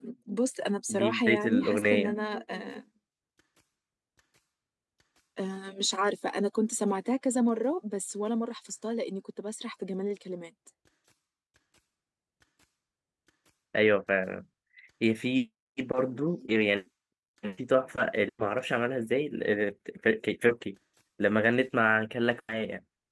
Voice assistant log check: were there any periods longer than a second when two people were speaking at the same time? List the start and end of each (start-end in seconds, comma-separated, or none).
0.9-2.1